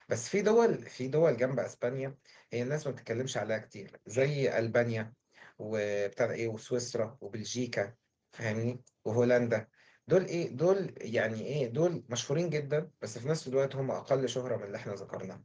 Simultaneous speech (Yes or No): No